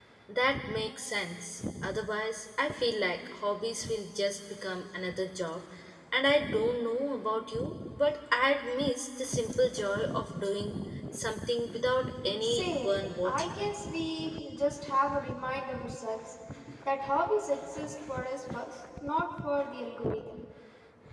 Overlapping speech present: Yes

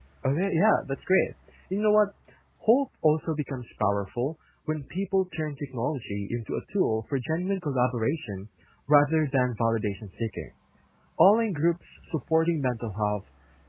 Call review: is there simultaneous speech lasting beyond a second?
No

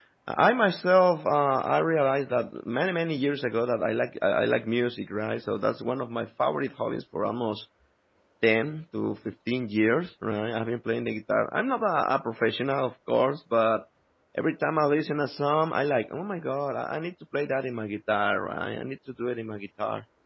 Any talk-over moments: No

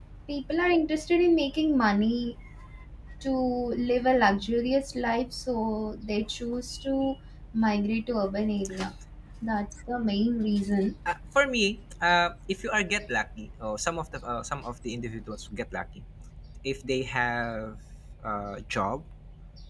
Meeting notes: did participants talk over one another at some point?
No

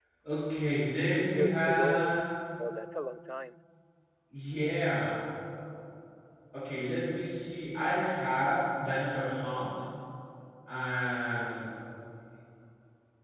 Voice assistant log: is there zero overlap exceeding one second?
No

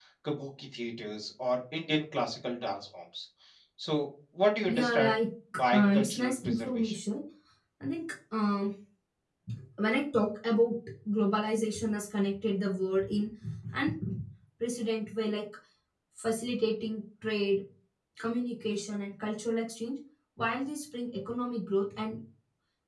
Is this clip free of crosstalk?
No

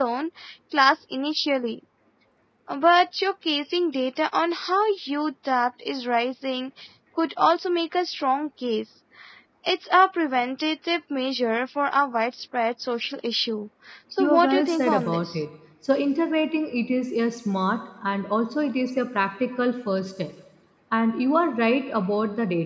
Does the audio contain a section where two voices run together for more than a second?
Yes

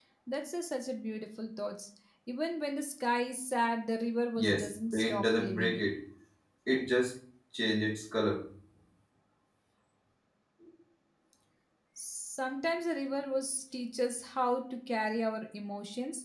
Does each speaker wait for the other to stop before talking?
No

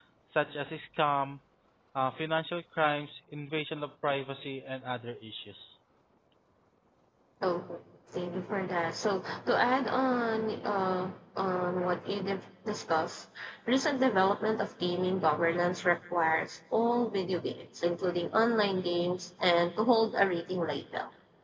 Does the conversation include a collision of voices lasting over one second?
No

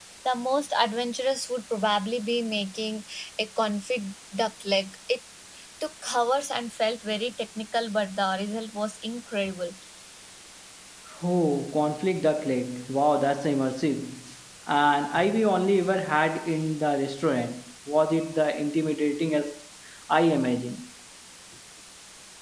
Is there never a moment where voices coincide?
Yes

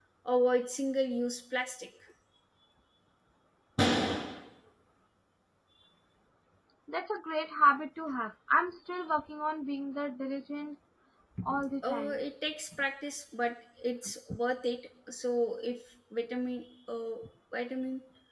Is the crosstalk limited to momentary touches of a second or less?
Yes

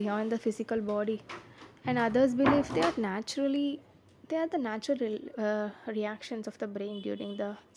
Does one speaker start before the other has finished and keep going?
No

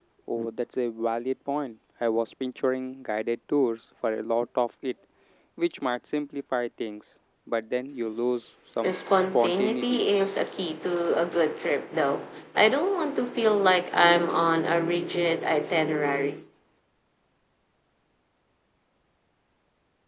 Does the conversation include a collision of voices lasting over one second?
Yes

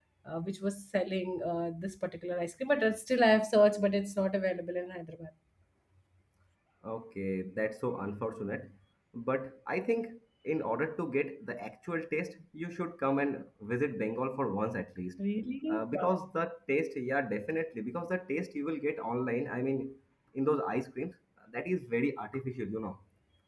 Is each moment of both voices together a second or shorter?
Yes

